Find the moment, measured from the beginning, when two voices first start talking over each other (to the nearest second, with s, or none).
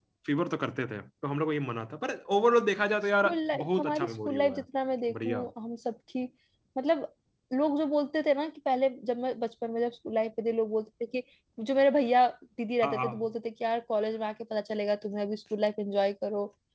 3 s